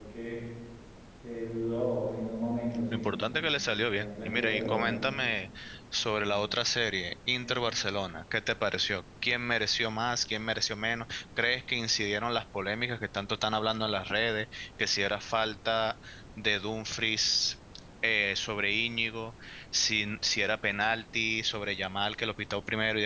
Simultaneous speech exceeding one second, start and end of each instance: 2.9-5.0

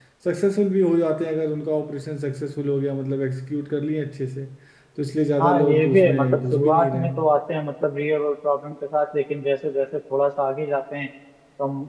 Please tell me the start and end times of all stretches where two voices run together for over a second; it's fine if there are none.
5.4-7.3

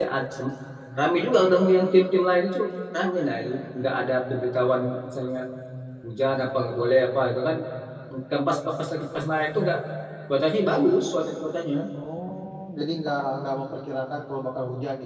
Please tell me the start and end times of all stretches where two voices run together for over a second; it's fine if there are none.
none

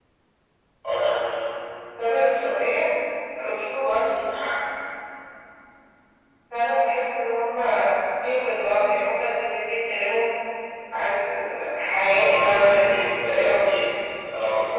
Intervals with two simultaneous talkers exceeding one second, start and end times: 12.2-13.9

